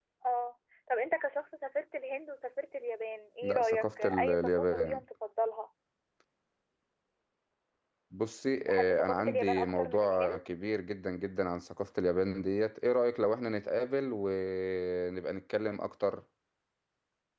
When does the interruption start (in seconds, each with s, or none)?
3.4 s